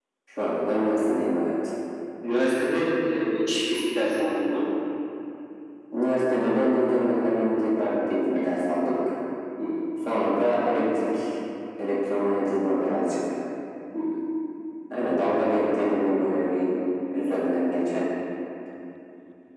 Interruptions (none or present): none